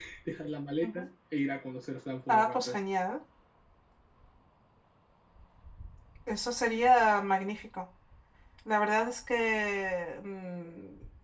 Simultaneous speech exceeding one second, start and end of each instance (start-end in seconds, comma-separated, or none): none